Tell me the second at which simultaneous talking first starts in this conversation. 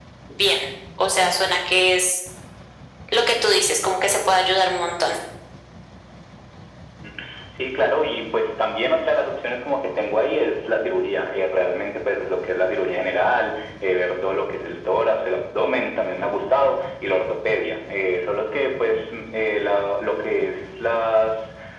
none

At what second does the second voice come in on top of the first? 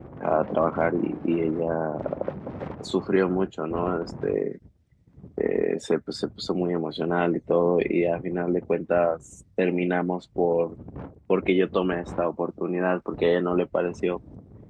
none

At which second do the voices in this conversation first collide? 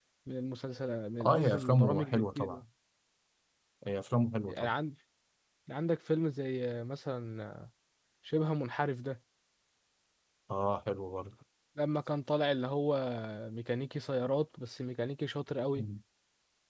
1 s

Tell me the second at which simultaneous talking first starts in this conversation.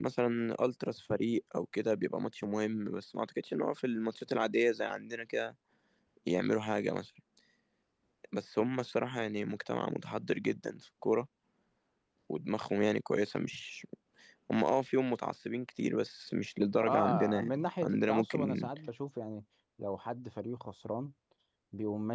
17 s

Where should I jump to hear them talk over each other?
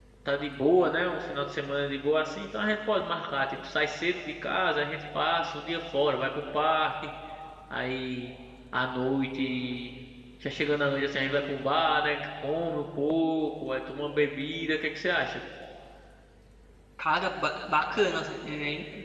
none

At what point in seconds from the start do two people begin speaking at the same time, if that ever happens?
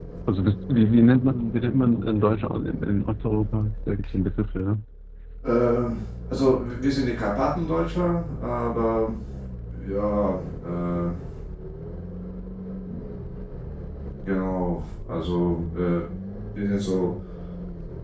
none

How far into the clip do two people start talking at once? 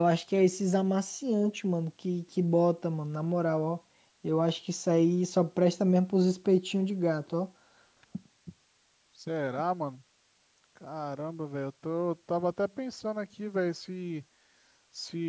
none

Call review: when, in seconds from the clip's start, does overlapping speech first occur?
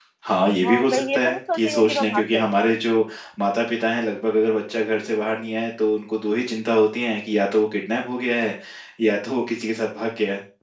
1 s

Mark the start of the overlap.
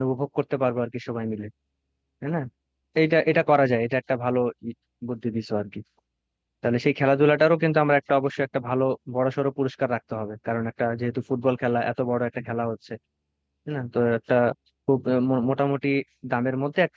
none

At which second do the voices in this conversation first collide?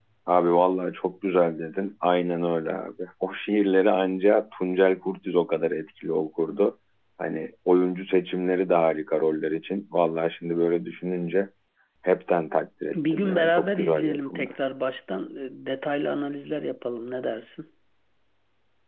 13 s

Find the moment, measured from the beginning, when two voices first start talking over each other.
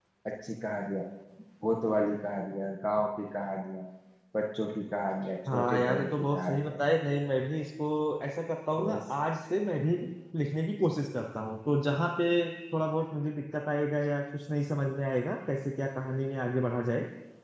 5 s

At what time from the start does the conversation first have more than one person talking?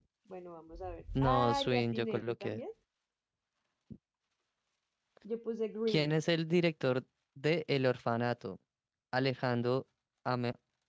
1 s

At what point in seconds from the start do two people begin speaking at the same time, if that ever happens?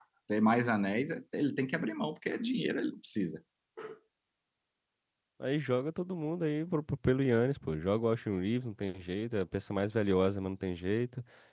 none

